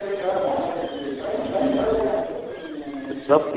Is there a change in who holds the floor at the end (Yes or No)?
Yes